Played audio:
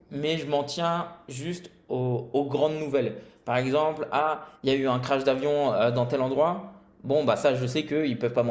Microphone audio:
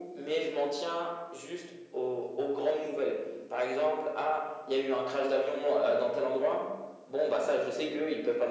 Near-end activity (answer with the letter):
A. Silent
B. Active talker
A